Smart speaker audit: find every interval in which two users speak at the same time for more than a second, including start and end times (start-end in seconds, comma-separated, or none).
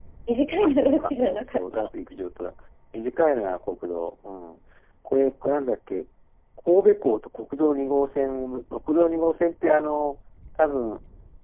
0.6-1.9